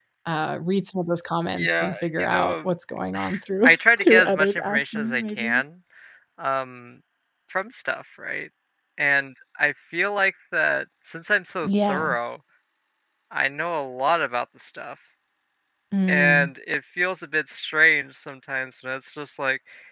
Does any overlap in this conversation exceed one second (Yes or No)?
Yes